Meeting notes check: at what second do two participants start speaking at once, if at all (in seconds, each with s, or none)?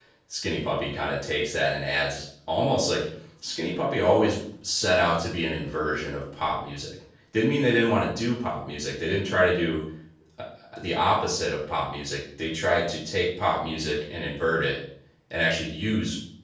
none